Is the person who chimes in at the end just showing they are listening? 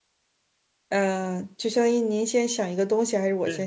No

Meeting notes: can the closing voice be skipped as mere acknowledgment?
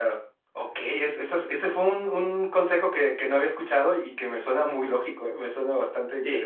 No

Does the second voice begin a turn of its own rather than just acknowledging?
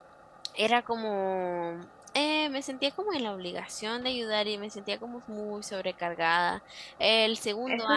Yes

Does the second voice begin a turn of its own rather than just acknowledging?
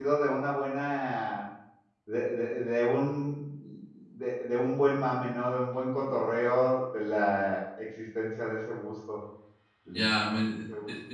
Yes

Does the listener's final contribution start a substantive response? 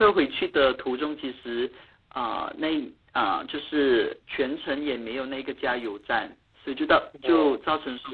No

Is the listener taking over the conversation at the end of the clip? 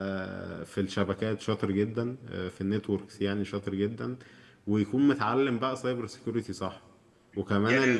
Yes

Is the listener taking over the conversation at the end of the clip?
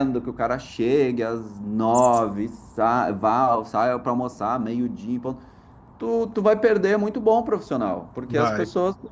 No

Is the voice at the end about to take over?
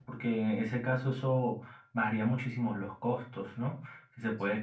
No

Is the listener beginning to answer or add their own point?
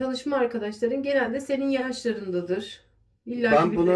Yes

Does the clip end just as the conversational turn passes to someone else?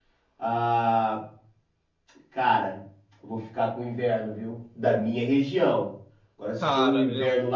No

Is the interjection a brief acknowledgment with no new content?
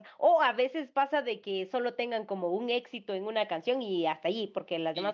Yes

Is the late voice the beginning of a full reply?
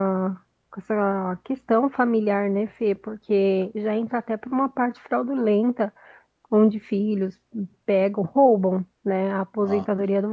No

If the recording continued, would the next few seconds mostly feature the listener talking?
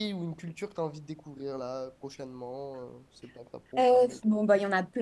Yes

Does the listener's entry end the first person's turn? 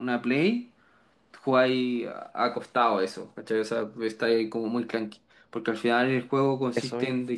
No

